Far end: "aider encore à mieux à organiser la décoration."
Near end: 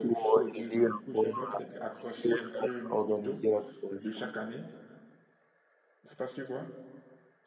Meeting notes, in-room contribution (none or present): present